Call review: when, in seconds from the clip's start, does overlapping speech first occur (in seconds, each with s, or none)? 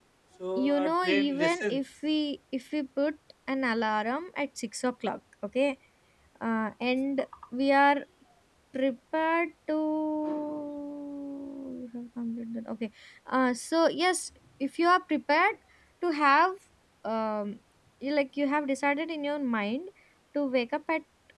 0.6 s